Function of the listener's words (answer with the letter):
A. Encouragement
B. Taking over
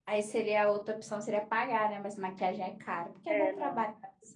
B